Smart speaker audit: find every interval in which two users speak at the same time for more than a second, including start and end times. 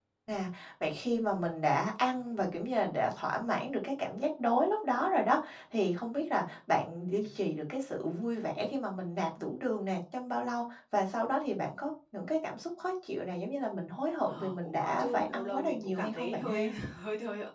14.3-16.7

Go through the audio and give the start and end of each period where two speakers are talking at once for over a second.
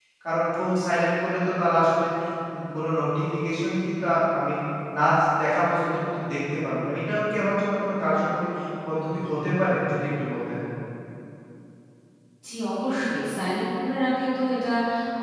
none

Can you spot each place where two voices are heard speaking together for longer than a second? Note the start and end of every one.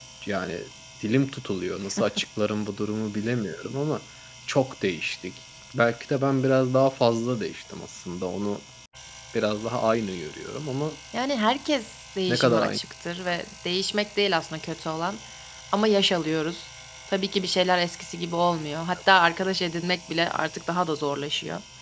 none

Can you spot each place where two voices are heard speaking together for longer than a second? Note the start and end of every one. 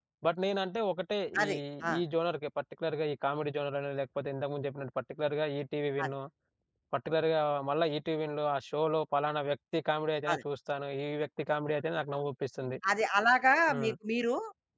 none

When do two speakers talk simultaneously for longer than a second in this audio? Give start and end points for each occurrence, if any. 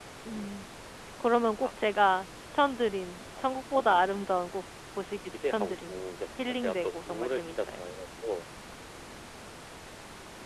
5.3-7.9

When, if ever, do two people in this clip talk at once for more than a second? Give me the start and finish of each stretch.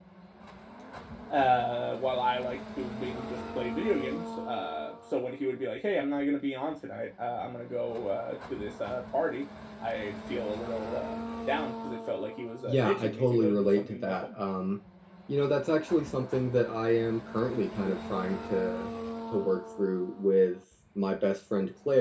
12.7-14.3

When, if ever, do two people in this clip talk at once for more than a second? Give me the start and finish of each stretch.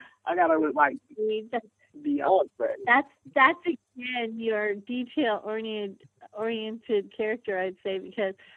none

